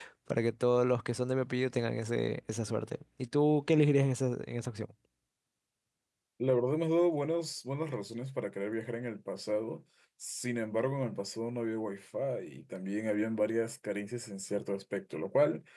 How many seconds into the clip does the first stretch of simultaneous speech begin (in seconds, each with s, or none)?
none